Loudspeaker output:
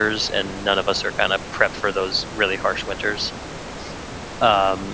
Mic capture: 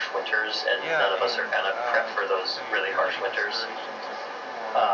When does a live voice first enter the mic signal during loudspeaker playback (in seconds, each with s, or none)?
0.7 s